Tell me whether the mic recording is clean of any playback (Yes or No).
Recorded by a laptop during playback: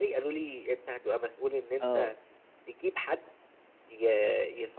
No